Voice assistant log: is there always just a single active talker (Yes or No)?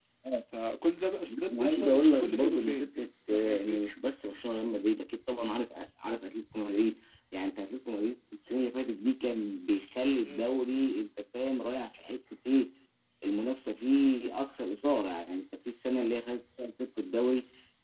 No